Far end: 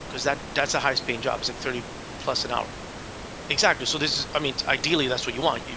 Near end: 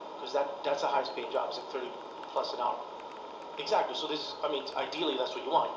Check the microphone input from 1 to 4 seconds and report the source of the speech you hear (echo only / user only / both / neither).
echo only